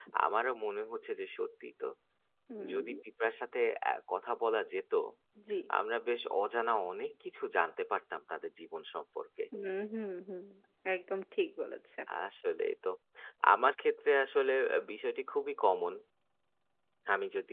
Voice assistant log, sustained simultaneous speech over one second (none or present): none